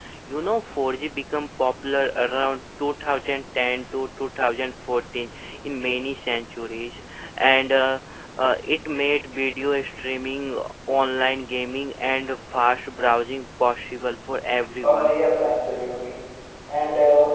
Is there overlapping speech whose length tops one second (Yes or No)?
No